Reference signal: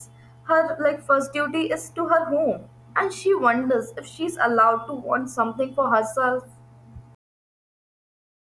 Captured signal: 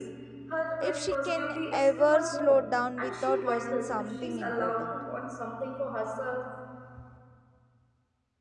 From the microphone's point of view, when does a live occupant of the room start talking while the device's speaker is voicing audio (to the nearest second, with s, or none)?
1 s